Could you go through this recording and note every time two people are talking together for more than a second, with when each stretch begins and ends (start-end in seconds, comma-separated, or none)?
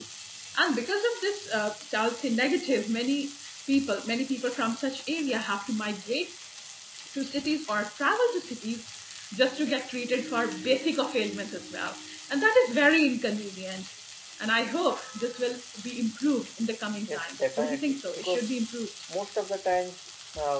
17.1-18.4